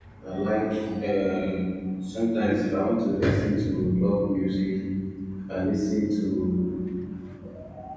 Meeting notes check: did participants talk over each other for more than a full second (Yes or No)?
No